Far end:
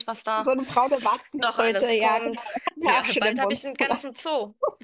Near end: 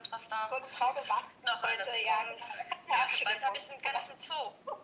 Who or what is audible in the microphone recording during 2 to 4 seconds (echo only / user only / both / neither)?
echo only